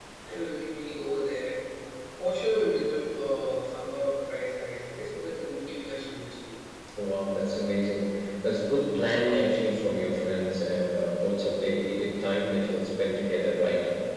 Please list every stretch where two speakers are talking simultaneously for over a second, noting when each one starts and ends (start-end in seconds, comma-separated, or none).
none